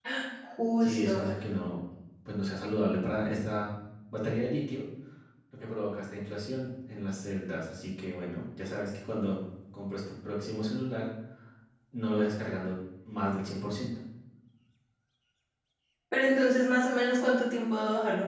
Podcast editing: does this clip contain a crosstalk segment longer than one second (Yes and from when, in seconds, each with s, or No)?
No